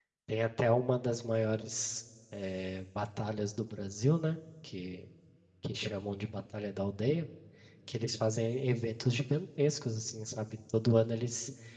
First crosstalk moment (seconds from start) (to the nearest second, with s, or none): none